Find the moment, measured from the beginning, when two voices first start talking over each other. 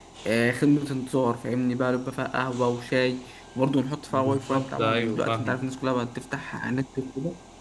4.1 s

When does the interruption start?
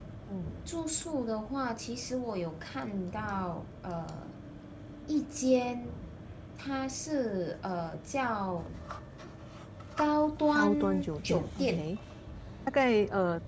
10.6 s

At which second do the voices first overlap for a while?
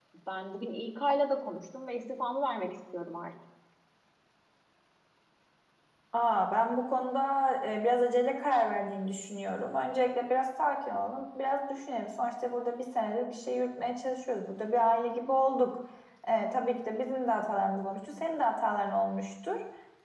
none

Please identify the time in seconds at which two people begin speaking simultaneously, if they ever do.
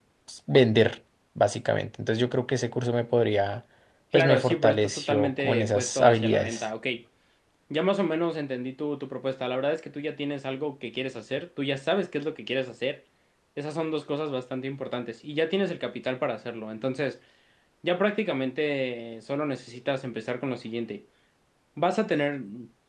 4.1 s

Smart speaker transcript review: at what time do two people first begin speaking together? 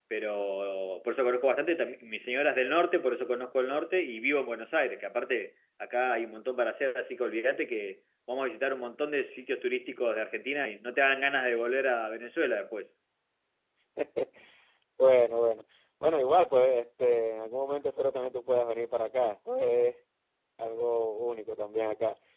none

